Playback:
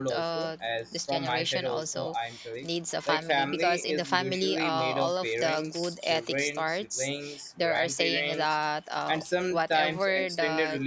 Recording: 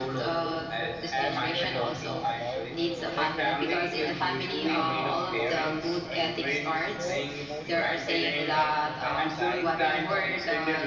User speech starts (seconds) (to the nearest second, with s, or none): 1 s